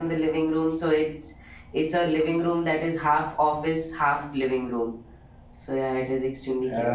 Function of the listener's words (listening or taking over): taking over